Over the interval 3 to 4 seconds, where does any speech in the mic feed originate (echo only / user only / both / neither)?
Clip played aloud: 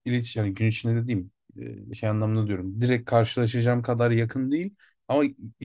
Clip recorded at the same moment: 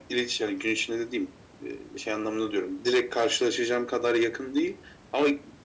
echo only